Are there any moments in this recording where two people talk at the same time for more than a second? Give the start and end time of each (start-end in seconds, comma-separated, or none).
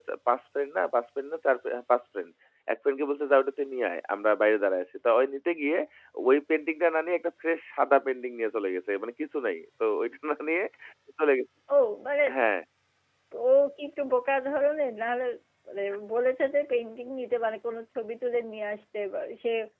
none